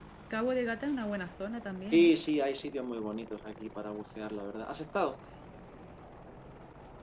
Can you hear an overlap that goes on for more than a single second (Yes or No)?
No